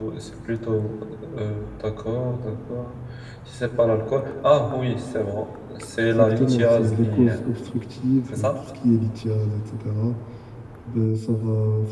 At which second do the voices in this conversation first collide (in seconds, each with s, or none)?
6.1 s